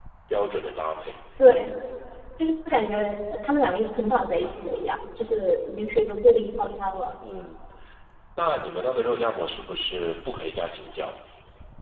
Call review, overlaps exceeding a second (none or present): none